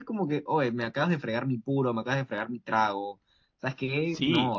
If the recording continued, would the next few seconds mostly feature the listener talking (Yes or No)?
Yes